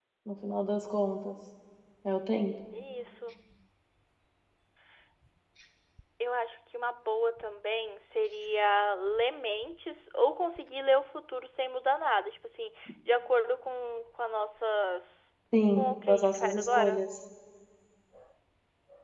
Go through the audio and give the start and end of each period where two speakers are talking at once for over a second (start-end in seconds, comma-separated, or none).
15.8-17.0